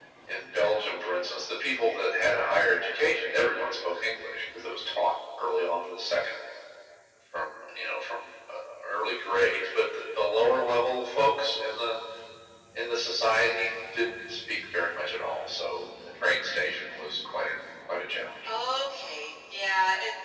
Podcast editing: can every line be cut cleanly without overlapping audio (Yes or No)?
Yes